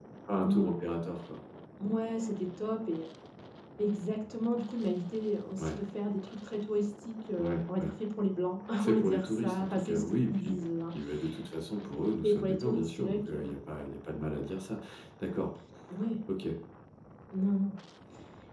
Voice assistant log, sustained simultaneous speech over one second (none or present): present